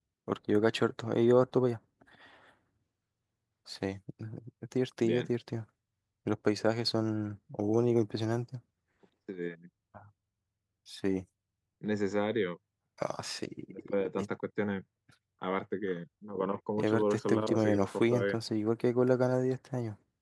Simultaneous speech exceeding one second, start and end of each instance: 16.8-18.4

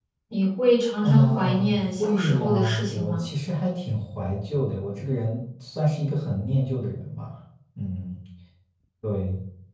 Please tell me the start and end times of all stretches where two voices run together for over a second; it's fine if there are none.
1.0-3.2

